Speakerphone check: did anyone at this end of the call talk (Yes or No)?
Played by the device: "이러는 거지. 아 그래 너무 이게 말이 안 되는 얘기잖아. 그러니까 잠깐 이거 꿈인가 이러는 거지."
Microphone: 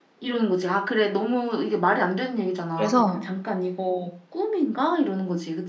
Yes